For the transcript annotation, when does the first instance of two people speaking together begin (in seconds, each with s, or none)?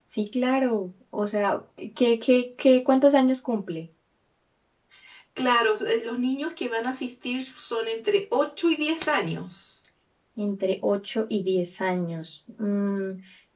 none